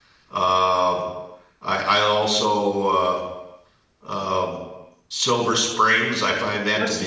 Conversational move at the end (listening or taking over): taking over